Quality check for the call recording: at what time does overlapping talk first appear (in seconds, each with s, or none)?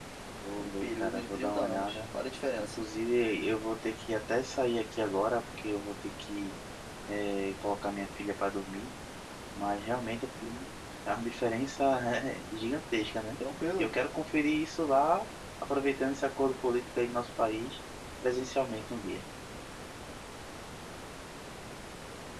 0.6 s